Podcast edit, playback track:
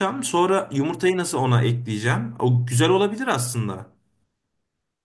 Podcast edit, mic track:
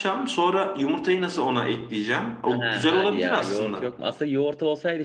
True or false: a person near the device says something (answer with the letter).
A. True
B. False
A